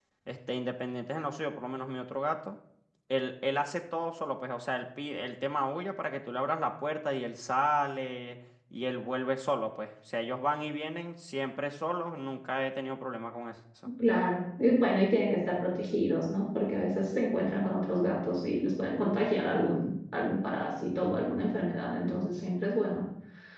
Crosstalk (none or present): none